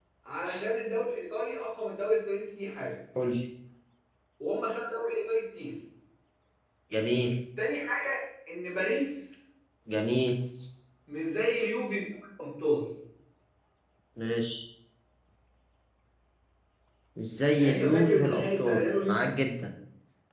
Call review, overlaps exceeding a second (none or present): present